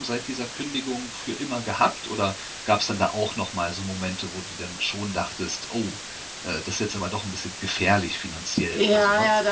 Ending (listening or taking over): taking over